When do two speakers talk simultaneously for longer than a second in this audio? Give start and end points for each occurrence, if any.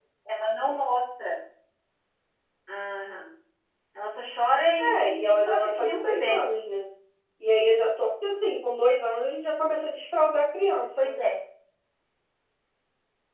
5.0-6.4

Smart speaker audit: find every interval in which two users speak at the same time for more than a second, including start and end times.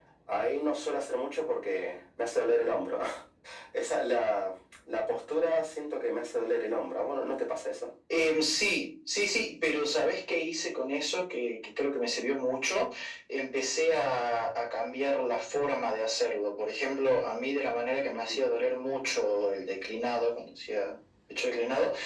none

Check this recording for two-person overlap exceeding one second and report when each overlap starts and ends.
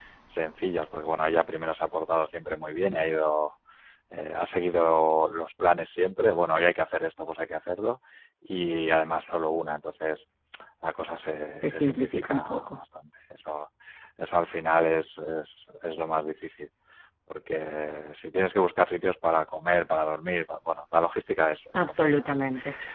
11.6-12.8

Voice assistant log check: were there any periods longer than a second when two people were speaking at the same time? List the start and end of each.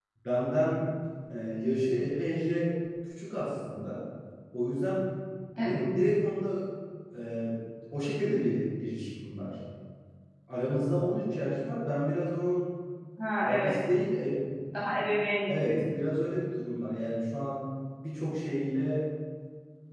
none

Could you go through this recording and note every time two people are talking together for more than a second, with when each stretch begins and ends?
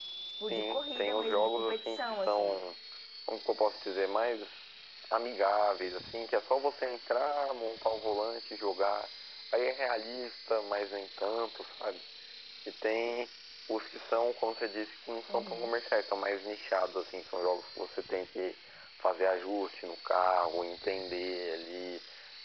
0.5-2.6

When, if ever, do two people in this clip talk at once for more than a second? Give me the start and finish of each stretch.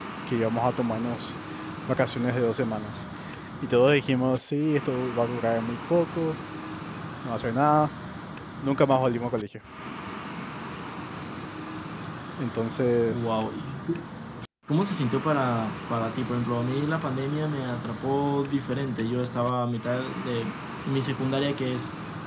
none

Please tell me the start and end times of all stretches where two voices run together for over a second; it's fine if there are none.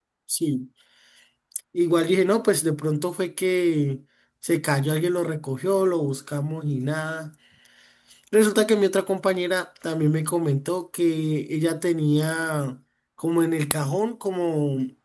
none

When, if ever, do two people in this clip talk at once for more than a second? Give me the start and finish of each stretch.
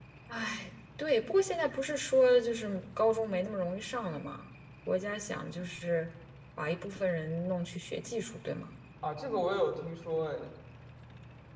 none

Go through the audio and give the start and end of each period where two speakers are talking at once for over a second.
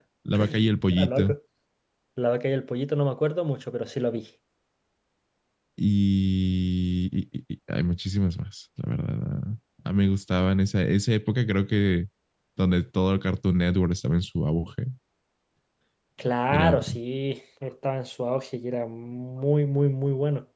none

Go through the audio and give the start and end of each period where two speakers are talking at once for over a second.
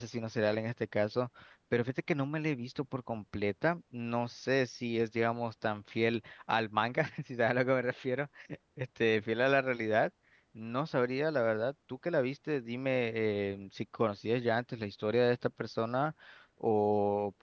none

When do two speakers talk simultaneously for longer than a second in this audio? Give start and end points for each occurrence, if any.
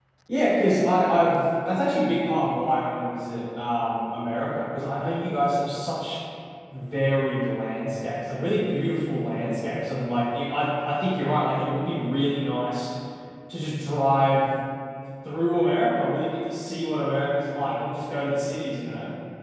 none

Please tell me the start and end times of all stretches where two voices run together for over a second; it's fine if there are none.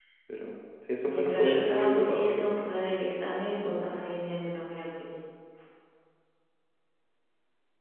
1.0-2.6

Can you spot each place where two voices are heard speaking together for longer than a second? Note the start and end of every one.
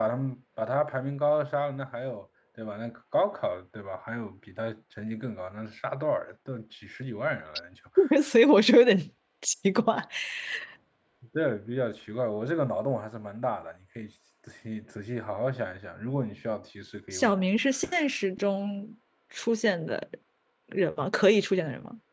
none

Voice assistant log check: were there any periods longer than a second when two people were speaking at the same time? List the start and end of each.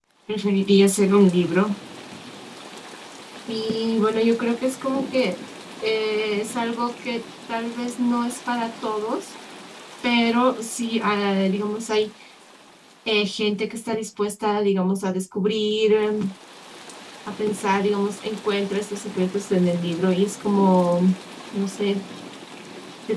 none

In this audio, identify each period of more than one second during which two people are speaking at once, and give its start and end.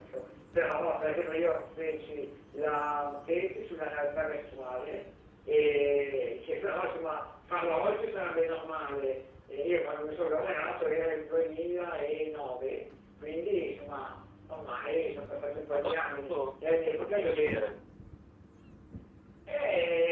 15.7-17.7

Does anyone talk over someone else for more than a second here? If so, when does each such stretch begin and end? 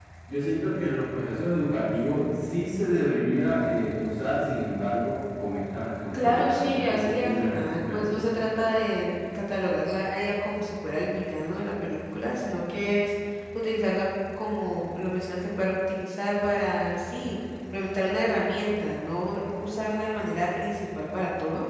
6.1-8.2

